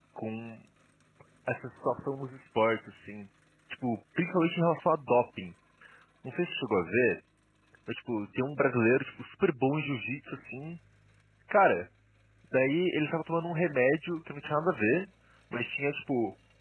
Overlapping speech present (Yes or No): No